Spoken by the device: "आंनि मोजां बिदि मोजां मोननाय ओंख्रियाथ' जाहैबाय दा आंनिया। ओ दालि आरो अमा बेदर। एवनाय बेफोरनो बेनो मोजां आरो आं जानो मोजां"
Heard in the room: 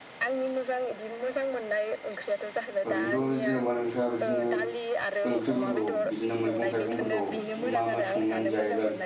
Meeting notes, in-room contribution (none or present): present